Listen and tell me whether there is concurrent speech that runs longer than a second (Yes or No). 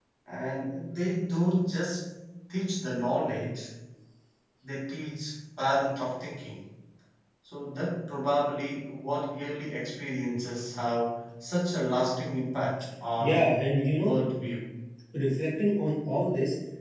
No